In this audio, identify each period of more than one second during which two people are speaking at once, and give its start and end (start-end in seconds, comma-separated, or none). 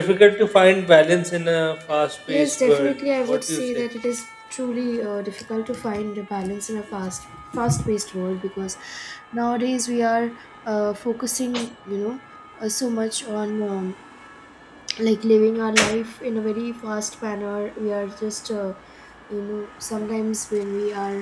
2.3-3.8